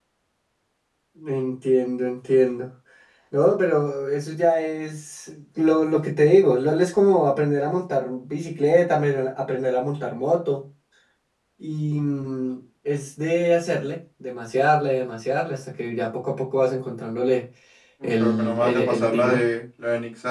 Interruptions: present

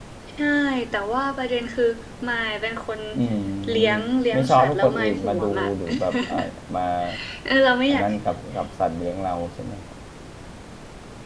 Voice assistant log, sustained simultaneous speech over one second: present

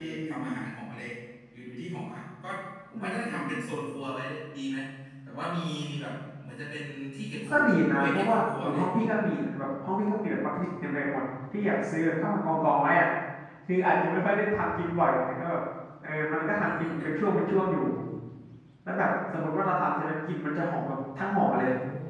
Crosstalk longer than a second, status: present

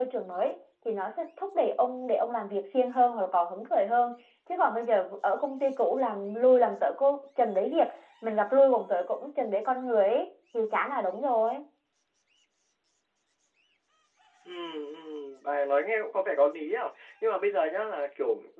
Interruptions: none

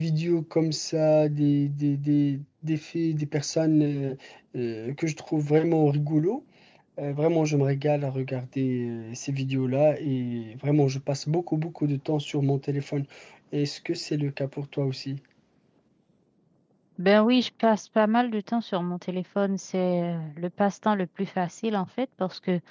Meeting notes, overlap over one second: none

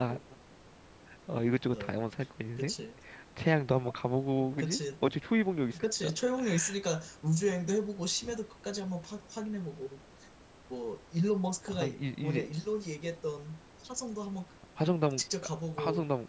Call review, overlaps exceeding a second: none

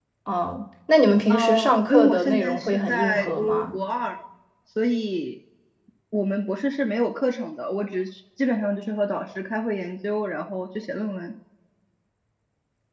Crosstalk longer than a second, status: present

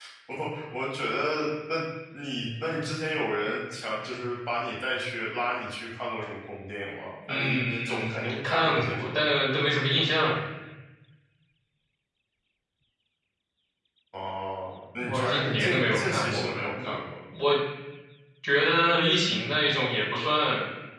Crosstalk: present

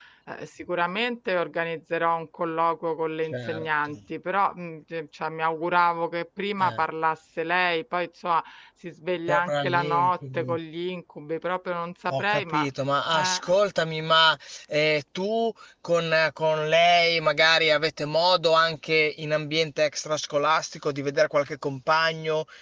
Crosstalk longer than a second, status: present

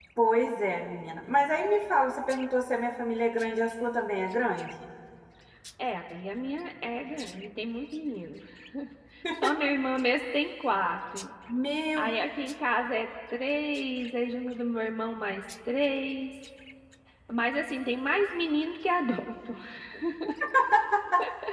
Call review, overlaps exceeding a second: none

